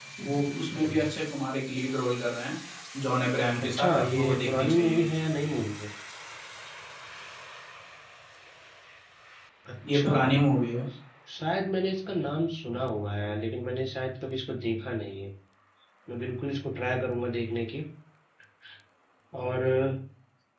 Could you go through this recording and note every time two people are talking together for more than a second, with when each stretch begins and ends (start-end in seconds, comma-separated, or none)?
3.6-5.0